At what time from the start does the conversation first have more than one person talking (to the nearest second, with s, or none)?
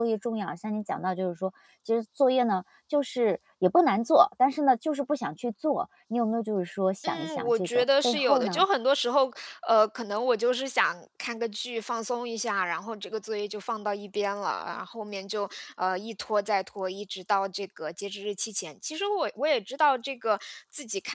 7 s